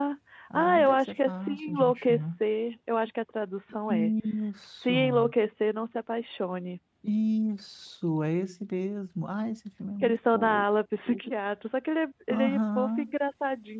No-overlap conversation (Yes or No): No